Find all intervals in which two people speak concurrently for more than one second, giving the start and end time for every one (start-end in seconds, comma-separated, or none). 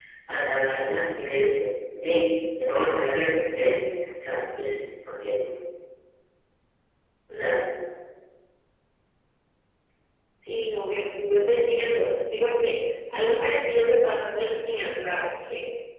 none